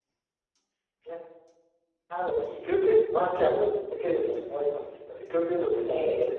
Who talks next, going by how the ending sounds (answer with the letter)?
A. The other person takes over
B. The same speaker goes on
B